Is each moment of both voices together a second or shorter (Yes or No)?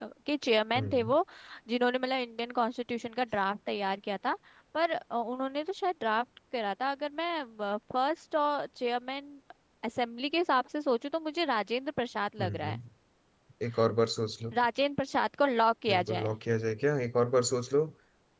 Yes